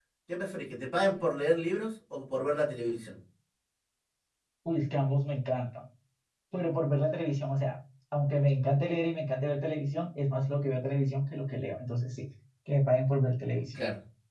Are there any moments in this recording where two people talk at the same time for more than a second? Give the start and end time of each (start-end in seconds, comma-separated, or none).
none